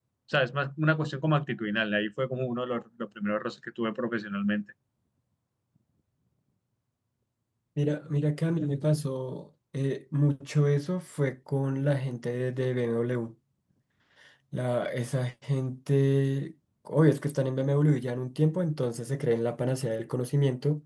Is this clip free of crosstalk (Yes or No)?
Yes